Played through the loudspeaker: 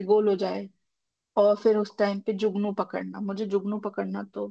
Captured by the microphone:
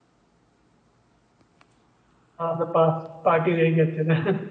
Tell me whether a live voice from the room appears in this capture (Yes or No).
Yes